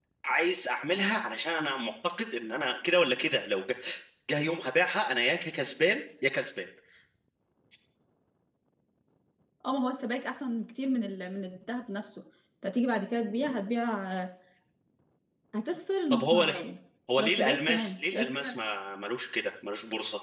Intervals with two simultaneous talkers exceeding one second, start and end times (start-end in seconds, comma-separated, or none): 17.2-18.6